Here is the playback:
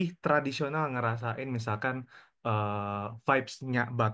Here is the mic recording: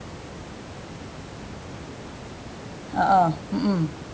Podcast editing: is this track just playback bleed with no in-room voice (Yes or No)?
No